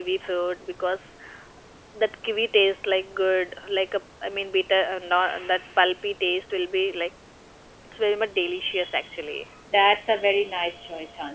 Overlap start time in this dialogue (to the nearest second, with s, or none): none